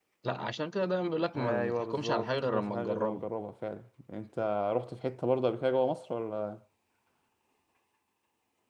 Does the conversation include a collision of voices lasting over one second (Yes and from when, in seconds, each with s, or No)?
Yes, from 1.4 s